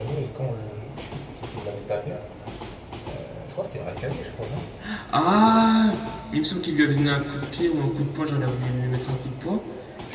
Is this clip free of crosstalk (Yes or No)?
Yes